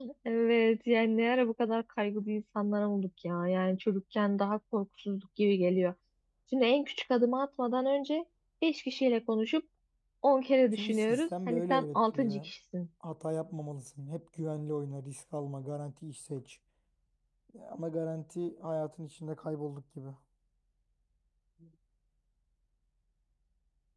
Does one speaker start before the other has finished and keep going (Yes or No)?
Yes